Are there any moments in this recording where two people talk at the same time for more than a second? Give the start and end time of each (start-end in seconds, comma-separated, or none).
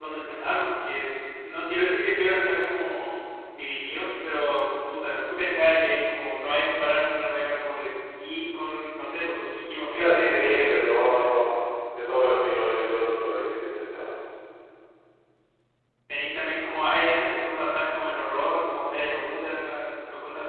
9.9-11.3